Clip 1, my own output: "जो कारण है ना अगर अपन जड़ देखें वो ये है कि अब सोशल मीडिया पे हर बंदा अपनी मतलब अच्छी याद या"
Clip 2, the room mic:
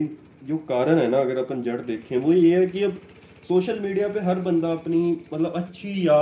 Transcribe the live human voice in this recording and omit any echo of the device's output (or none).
none